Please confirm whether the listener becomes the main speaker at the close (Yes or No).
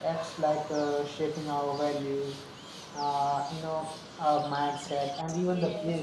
Yes